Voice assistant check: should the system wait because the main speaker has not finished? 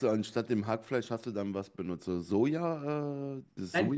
No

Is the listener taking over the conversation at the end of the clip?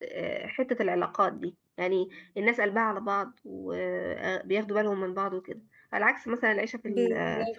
No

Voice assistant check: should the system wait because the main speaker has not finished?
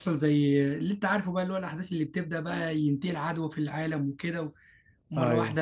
Yes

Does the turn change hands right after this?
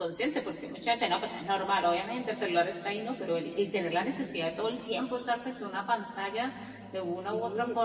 No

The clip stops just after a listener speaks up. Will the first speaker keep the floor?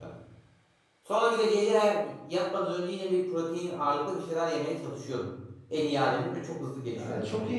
No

